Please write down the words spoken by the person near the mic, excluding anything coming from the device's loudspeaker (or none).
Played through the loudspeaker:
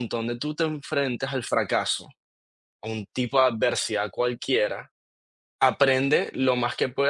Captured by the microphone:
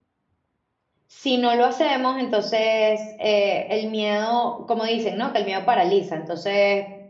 si no lo hacemos, entonces eh, el miedo, como dicen, ¿no? Que el miedo paraliza. Entonces,